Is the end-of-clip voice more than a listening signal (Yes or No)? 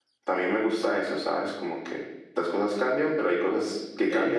Yes